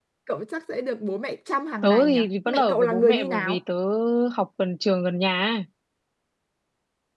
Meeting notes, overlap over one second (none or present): present